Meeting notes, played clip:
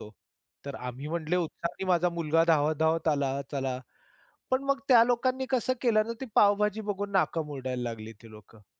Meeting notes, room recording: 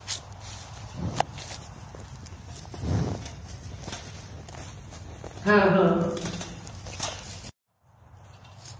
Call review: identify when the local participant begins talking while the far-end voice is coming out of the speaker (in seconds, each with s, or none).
5.4 s